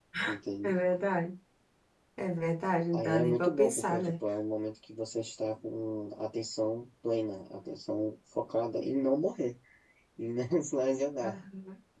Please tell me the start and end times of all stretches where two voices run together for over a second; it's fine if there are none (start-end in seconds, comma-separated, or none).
2.9-4.2